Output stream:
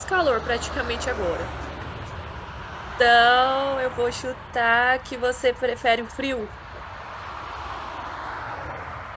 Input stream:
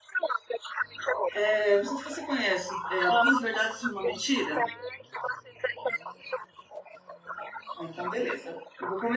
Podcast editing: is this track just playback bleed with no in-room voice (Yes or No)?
No